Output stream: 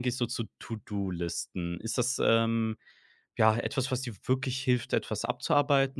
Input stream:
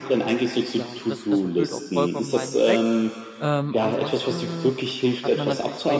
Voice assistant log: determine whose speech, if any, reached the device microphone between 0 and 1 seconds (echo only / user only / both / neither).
both